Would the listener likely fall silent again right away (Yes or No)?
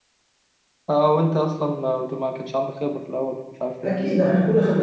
No